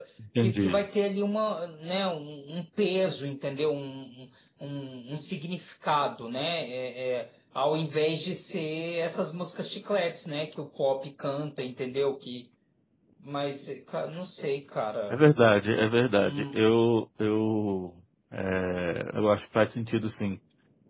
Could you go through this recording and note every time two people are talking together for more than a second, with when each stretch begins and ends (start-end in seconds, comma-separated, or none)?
none